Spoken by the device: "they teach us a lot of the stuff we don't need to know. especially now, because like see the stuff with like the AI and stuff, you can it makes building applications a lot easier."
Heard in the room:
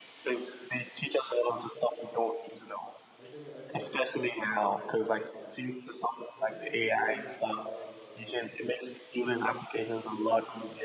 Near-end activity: present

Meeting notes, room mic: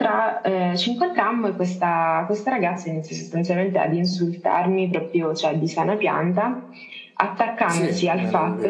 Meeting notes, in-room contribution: present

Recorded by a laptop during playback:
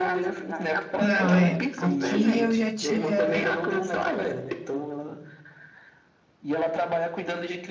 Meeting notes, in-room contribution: present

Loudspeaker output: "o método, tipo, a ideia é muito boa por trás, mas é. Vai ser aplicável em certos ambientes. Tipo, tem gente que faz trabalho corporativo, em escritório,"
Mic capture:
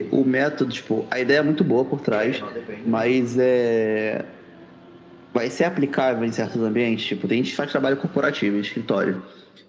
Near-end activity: present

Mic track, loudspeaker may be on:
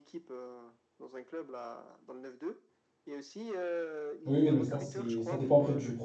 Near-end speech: present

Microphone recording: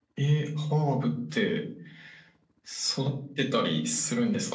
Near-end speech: none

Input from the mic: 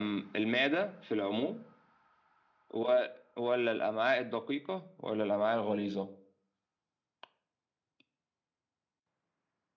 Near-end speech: none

